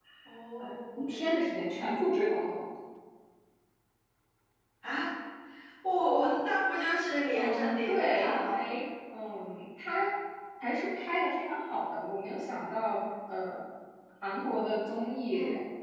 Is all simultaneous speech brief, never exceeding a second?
No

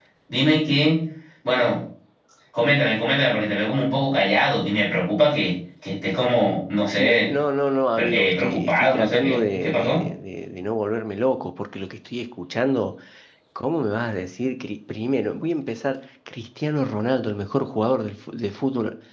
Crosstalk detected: Yes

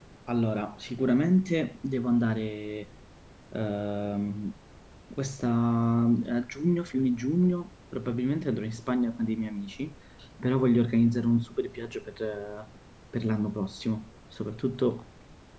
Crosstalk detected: No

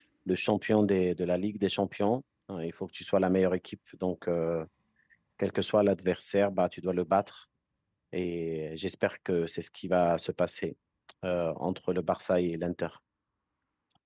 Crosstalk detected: No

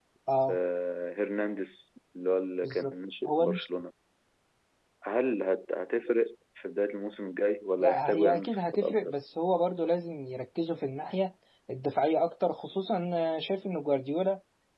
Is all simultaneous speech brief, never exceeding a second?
No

